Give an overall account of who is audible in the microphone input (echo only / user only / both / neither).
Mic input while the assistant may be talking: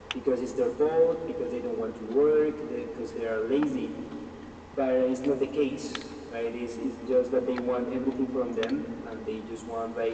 echo only